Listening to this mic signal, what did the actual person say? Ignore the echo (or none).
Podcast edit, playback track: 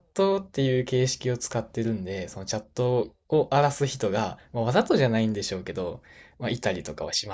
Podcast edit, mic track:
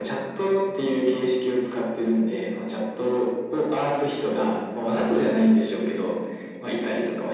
none